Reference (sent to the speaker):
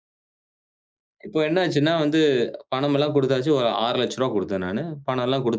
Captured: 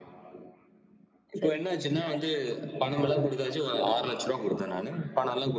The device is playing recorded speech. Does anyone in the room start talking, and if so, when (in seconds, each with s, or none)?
1.4 s